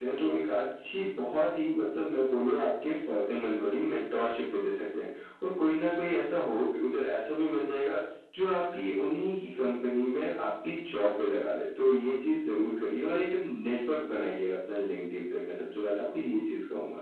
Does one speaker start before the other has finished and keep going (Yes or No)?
No